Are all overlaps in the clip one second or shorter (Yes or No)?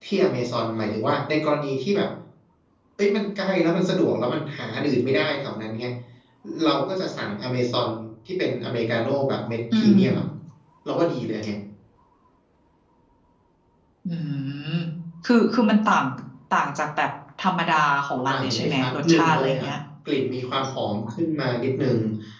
No